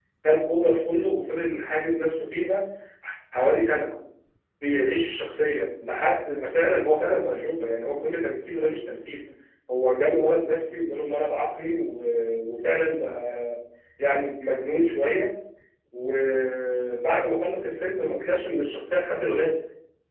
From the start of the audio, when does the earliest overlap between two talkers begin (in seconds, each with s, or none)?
none